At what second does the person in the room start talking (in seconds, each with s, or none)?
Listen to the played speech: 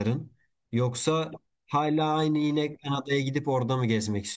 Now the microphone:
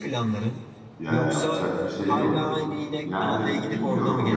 1.0 s